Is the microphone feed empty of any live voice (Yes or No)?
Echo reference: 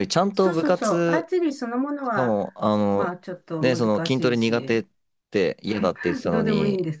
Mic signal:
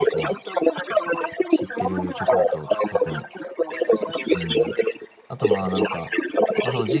No